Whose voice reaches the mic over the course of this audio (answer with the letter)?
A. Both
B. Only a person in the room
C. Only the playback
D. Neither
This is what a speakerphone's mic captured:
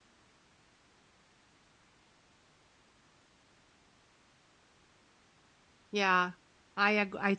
B